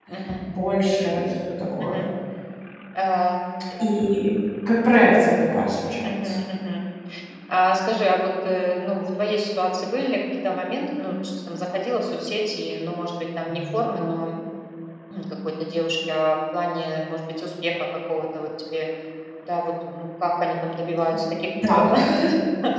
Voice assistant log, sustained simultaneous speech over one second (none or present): none